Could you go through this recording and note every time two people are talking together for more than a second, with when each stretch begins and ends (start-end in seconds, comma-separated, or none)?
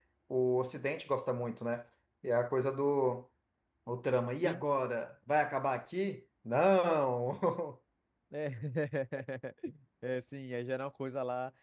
none